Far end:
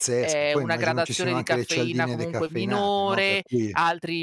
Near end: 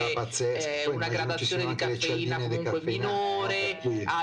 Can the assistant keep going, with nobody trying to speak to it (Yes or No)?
No